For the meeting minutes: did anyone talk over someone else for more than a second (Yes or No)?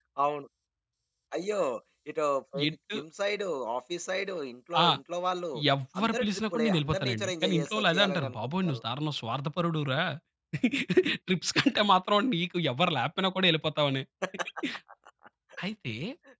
Yes